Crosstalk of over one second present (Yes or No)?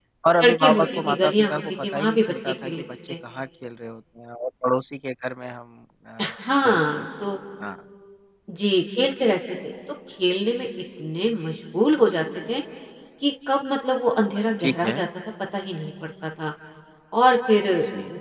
Yes